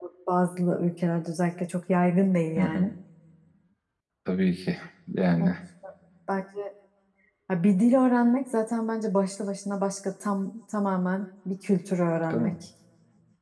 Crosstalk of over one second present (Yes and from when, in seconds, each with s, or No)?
No